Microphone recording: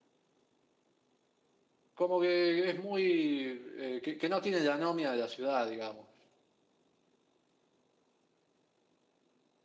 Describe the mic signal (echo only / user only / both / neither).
user only